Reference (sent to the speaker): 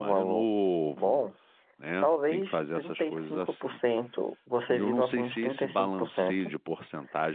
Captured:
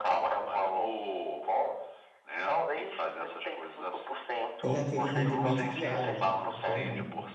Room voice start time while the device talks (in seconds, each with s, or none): 4.6 s